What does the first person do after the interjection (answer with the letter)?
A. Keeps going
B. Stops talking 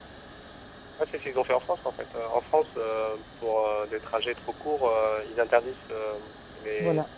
A